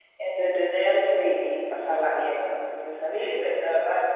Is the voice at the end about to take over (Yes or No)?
No